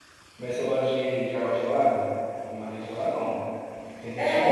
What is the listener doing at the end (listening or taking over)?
taking over